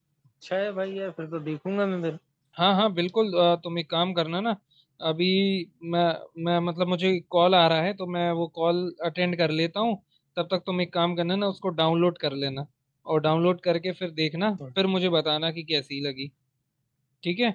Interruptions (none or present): none